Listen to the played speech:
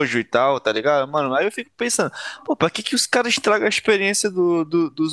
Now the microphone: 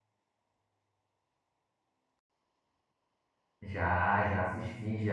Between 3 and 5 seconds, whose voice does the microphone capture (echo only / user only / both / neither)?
user only